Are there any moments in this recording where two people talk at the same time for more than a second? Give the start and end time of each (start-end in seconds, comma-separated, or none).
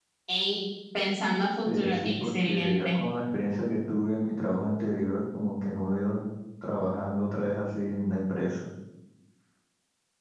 1.6-3.0